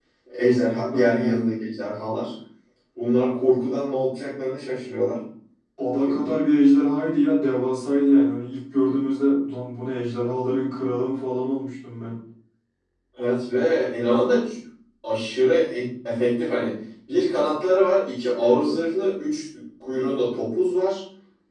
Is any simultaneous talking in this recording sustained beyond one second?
No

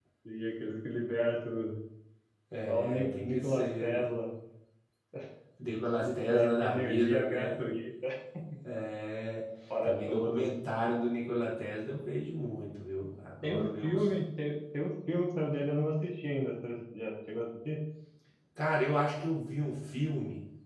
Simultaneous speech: Yes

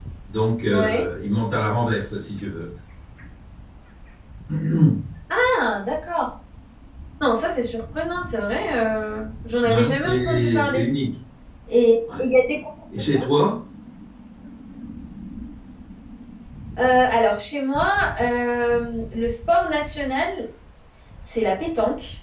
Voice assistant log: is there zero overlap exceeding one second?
No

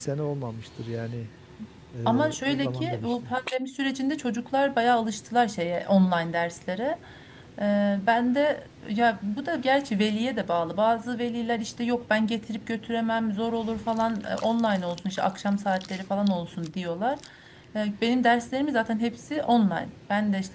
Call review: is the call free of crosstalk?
No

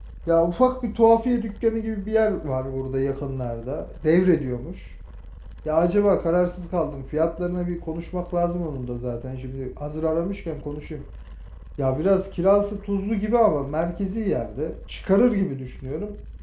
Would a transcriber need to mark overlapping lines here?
No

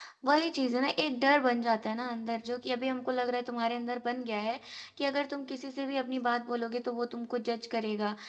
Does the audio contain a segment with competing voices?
No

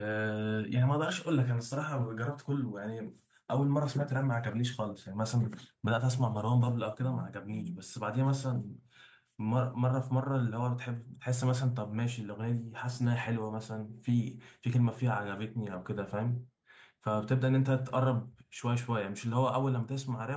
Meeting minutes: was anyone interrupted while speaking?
No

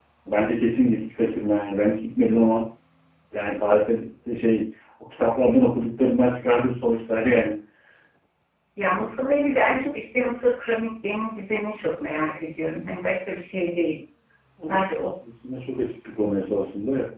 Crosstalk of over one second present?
No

